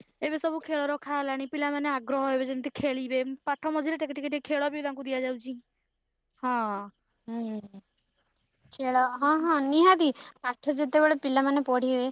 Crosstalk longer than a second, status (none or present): none